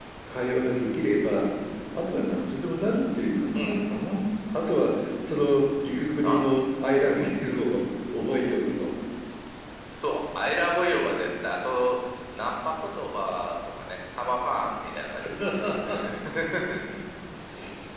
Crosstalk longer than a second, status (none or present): none